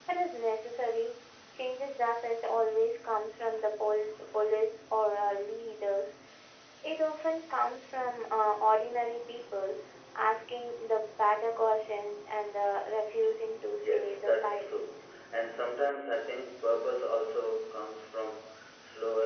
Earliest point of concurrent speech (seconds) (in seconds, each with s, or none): 13.8 s